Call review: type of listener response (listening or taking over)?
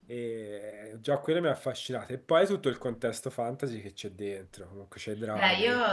taking over